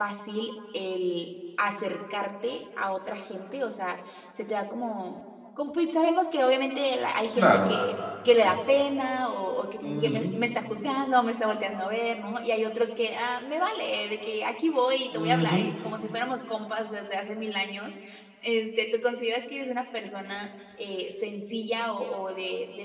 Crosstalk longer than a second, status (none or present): none